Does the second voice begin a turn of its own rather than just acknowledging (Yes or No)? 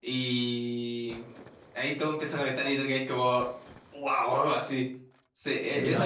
No